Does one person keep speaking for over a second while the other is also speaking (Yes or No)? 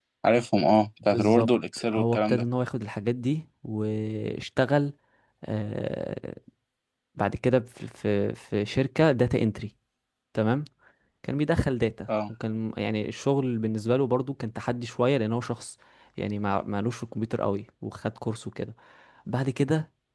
No